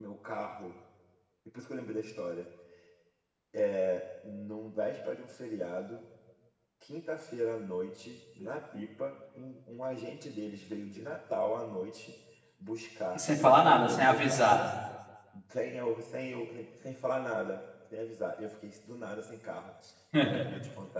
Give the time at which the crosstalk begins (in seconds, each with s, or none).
13.1 s